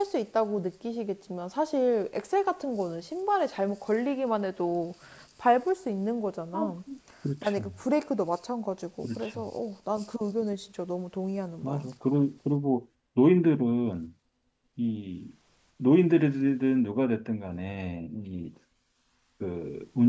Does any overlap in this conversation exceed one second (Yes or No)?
No